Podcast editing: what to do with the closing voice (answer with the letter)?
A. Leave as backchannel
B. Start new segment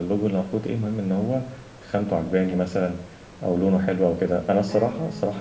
A